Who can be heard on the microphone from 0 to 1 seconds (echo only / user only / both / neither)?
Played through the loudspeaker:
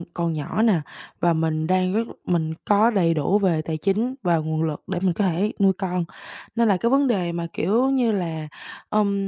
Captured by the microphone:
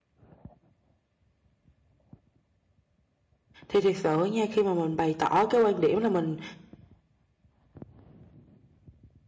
neither